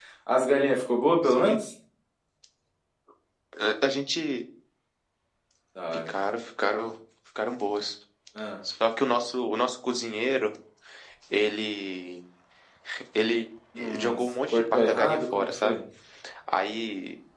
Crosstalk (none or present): present